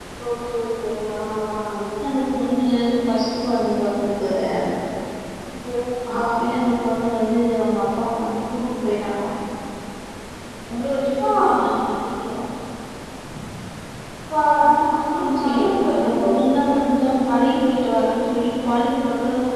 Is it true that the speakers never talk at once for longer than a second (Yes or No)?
Yes